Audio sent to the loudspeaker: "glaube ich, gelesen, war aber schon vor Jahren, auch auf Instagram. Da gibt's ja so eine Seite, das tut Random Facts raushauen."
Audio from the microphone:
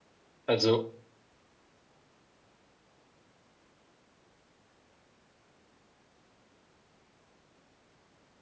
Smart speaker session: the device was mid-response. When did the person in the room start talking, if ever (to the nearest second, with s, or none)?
0 s